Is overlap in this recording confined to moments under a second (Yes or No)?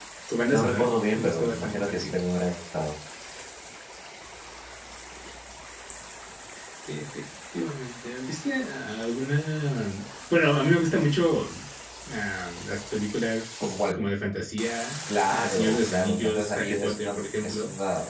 No